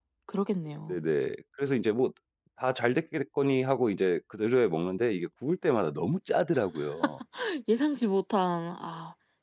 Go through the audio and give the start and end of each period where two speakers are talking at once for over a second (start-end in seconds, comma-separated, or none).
none